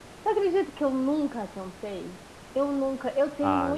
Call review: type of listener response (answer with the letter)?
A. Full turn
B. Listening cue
B